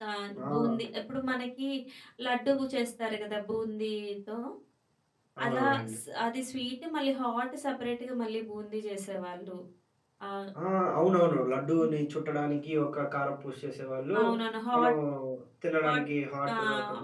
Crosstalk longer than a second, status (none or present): none